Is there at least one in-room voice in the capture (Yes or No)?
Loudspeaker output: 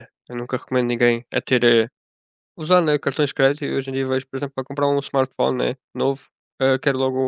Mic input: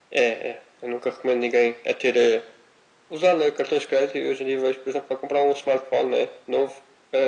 No